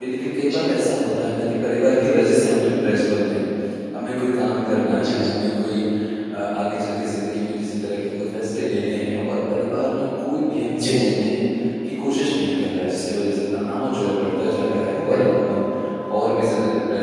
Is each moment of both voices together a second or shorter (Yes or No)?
Yes